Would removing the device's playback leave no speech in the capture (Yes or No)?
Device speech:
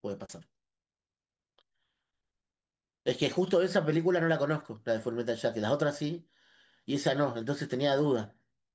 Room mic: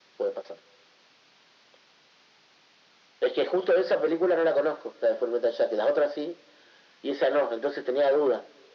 Yes